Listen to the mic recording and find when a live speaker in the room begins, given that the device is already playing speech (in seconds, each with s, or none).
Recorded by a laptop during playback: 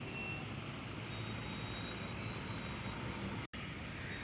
none